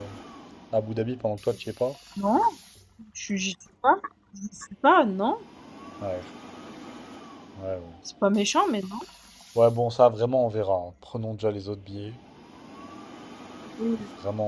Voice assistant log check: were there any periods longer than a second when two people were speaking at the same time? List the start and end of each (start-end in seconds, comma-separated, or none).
none